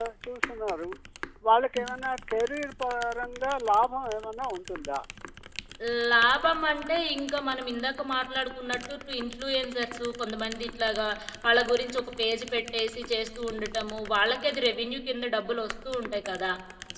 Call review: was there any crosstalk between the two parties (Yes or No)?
No